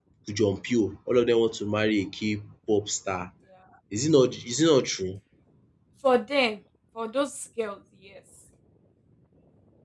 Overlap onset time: none

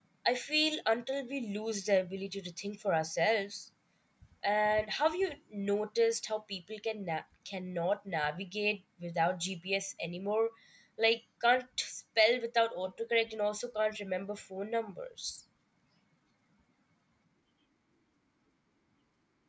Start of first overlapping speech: none

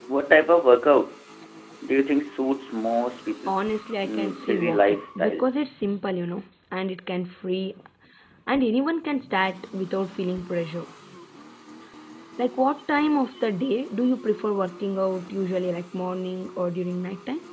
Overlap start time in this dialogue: 4.0 s

